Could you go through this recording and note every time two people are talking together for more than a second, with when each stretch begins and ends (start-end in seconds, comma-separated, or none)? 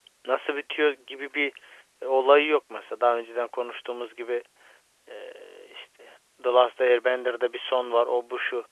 none